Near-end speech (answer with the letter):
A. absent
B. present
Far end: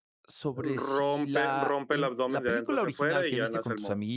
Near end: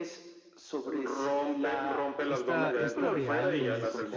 B